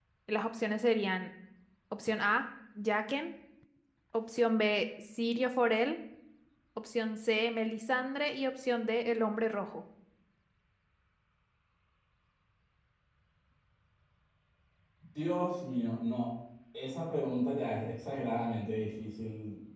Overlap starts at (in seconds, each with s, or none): none